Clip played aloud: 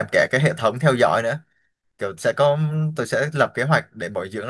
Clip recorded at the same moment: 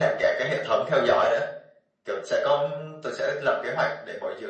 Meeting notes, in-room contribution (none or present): none